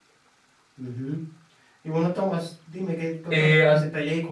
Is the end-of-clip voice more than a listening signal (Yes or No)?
No